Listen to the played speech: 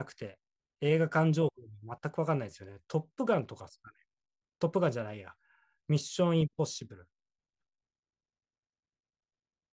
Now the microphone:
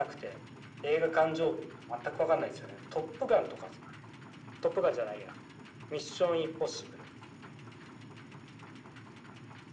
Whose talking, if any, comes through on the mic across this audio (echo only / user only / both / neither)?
echo only